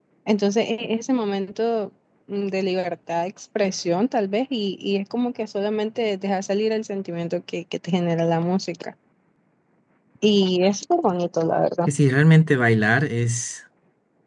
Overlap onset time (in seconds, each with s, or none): none